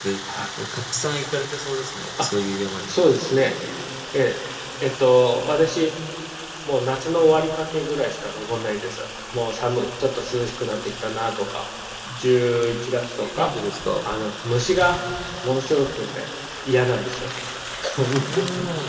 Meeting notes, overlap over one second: none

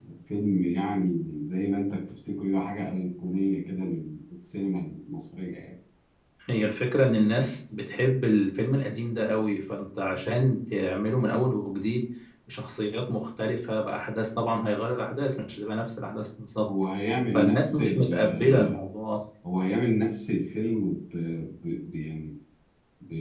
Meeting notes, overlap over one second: present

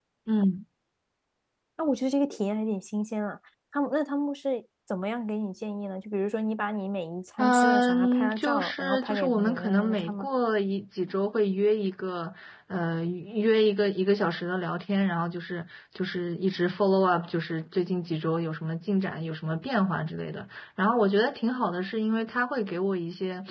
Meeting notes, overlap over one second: present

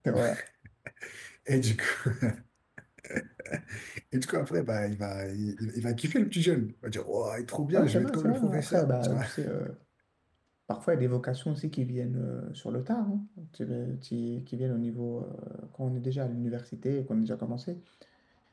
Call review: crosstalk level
present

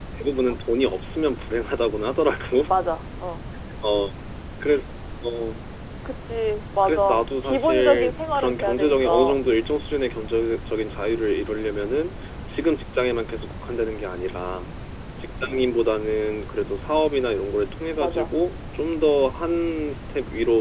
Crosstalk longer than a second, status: present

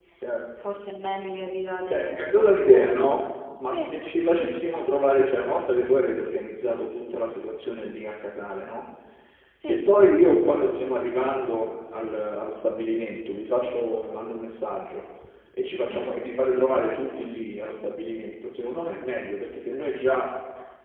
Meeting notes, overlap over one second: present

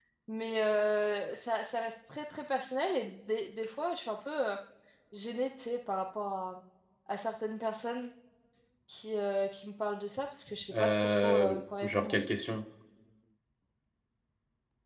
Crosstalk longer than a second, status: present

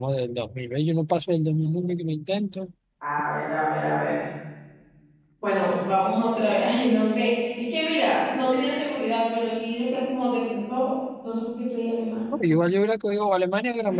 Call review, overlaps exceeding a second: none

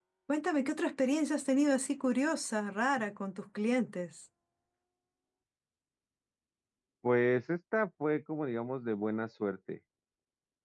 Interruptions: none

